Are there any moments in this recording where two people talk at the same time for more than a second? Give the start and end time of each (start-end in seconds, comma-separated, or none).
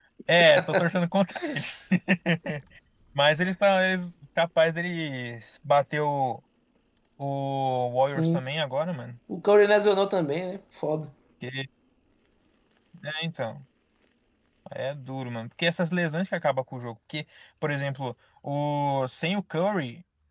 none